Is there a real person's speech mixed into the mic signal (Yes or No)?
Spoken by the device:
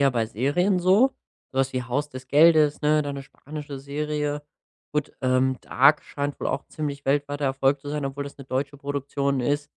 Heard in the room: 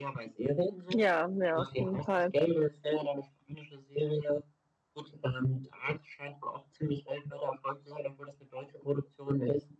Yes